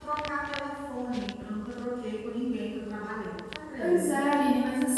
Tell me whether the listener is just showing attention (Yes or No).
No